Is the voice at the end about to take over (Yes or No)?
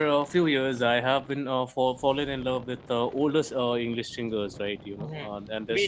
Yes